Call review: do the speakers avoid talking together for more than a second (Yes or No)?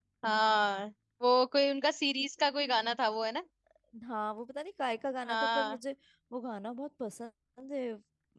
Yes